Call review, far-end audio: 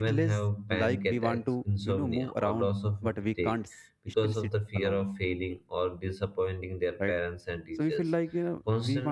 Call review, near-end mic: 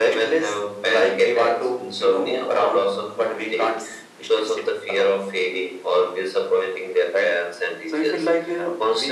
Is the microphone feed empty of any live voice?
Yes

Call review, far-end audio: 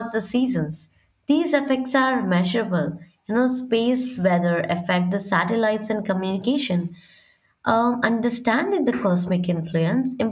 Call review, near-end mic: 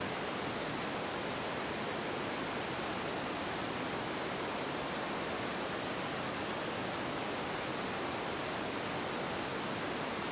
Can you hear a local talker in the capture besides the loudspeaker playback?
No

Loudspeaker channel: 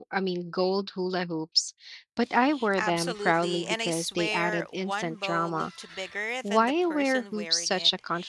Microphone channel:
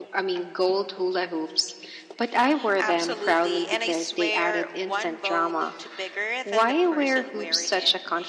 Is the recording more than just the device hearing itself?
No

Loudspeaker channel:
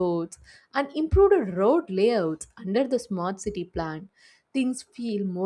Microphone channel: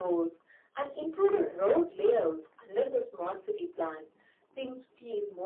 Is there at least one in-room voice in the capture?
No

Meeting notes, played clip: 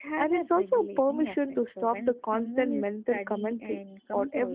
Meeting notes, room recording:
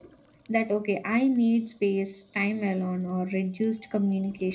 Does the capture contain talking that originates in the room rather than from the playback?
Yes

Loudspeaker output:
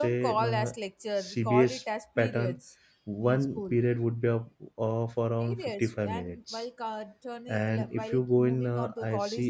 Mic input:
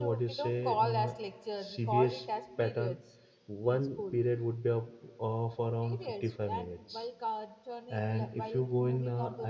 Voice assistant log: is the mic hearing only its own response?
Yes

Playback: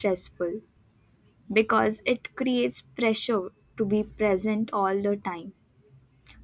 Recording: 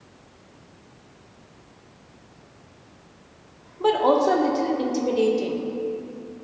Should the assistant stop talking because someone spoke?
Yes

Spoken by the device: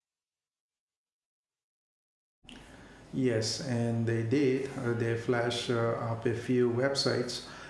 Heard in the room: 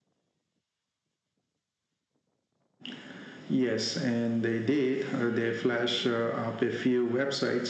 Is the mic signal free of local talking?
Yes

